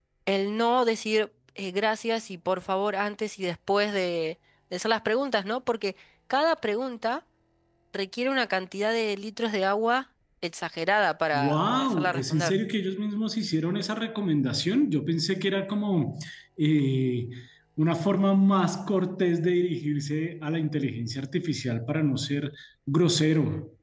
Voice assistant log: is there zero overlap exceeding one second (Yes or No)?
No